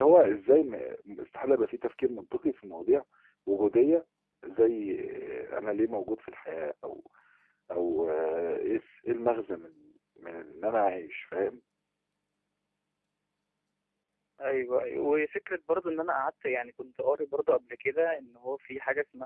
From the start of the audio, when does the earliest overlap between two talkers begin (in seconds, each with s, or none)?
none